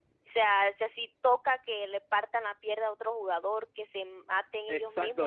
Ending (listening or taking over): taking over